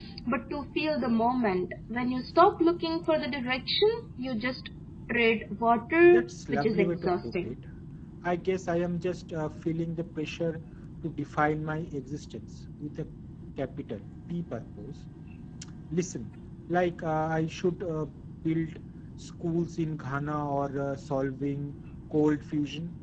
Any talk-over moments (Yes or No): Yes